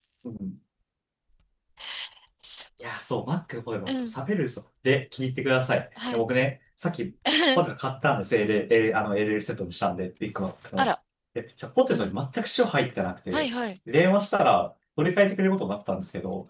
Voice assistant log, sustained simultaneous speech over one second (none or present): none